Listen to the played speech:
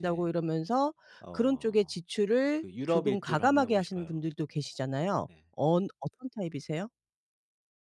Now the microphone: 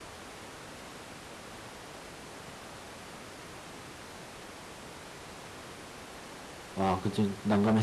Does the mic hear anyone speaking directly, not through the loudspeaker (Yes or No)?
Yes